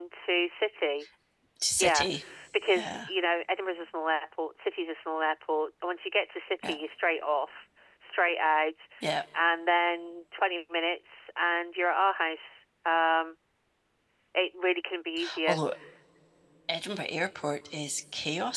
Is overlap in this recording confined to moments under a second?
Yes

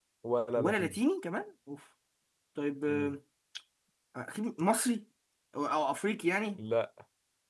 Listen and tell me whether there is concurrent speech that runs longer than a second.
No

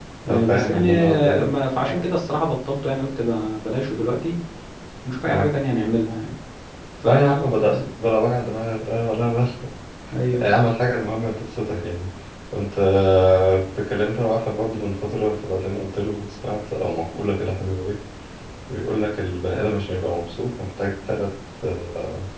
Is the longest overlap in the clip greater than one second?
Yes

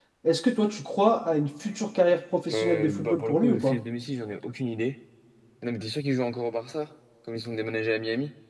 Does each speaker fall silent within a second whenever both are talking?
No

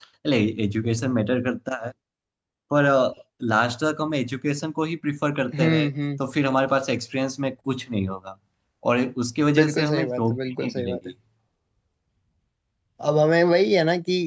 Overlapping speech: Yes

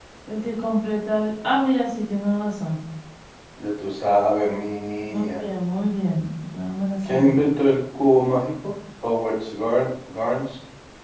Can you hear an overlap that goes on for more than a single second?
No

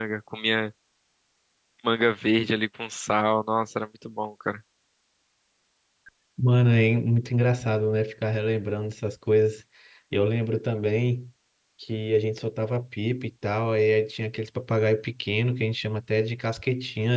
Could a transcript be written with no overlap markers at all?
Yes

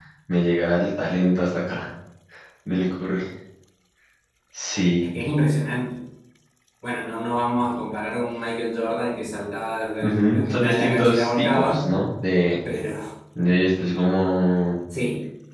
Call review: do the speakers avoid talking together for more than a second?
No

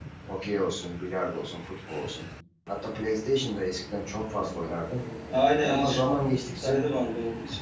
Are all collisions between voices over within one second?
Yes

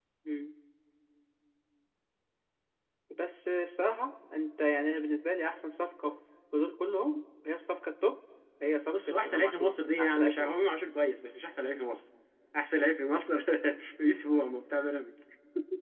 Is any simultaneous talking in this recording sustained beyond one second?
Yes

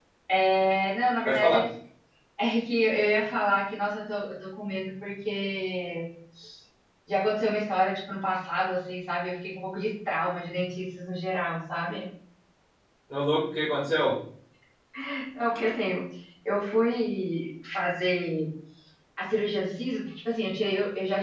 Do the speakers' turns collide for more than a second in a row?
No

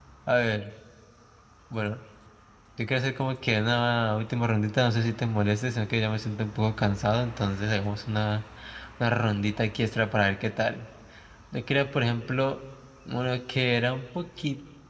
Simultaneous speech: No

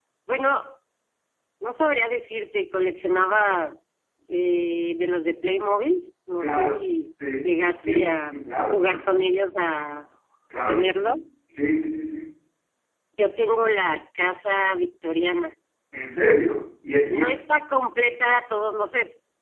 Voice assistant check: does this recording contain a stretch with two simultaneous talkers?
Yes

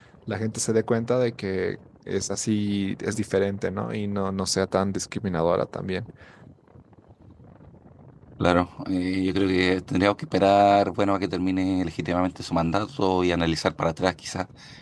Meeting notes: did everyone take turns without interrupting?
Yes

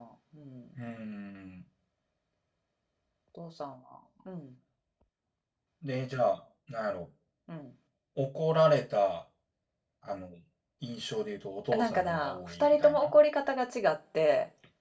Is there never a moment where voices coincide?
No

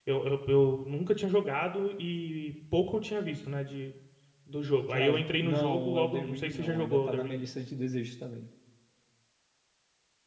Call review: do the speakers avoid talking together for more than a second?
No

